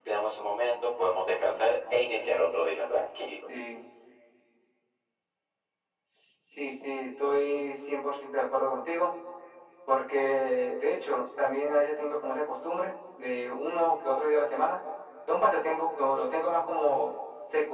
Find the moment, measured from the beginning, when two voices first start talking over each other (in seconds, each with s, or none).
none